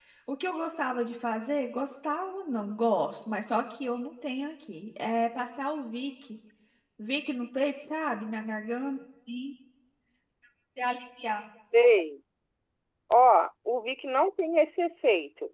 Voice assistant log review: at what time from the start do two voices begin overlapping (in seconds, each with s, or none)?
none